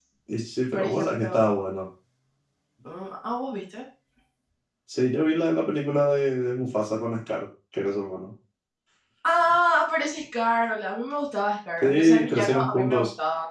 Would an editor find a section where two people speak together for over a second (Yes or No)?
Yes